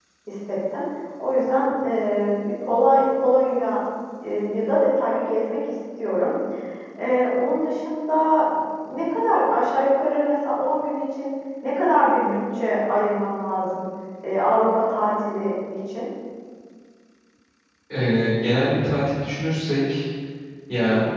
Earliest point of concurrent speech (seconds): none

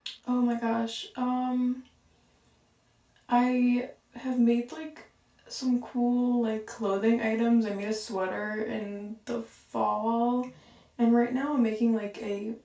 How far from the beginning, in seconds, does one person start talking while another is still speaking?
none

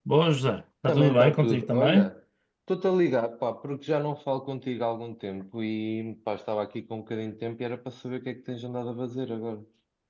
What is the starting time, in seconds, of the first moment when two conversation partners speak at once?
0.9 s

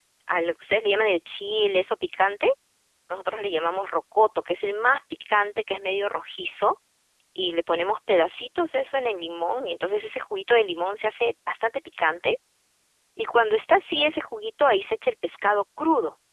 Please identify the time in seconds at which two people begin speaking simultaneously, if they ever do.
none

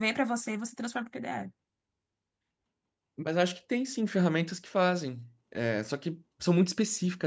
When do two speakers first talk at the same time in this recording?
none

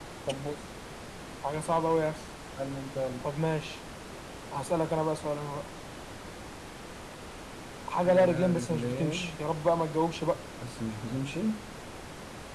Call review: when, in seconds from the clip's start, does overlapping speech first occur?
8.0 s

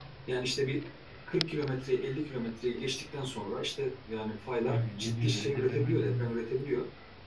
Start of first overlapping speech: 4.7 s

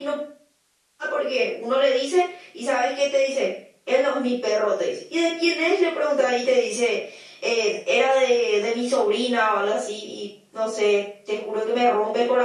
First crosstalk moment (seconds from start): none

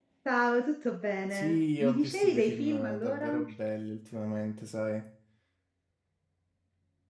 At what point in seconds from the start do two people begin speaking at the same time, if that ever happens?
1.3 s

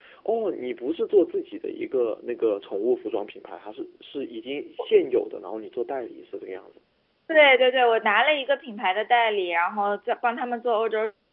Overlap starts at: none

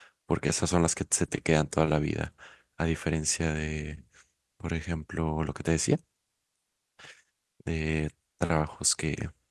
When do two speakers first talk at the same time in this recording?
none

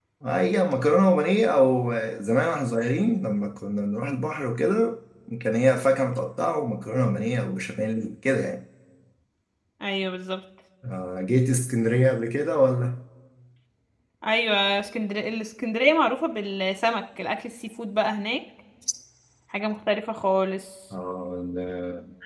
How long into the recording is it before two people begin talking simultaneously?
none

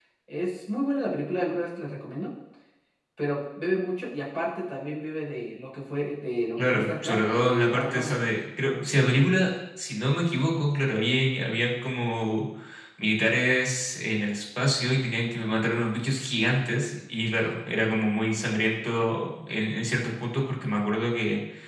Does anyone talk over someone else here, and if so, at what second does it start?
6.6 s

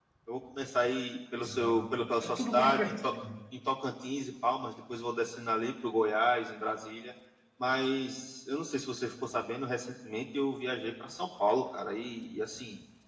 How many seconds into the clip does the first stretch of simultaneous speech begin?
1.4 s

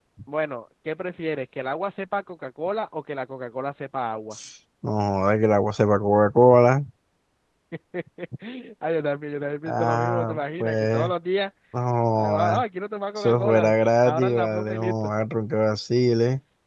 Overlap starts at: 9.7 s

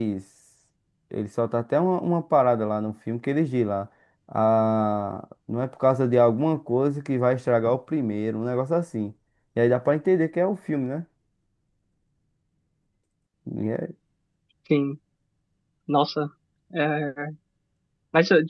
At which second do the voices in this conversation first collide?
none

